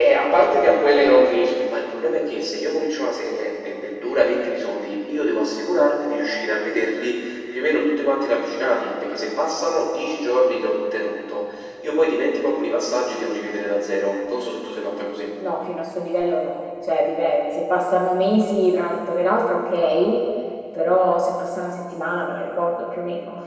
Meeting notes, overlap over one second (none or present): none